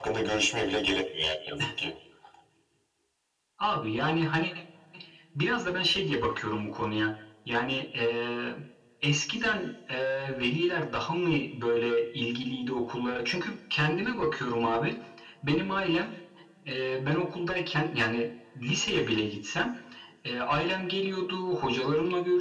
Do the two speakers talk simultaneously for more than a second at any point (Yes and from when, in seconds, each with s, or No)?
No